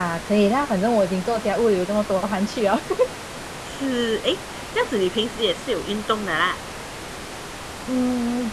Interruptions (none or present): none